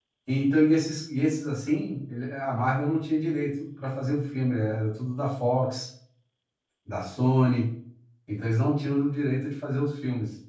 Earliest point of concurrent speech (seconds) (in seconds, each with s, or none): none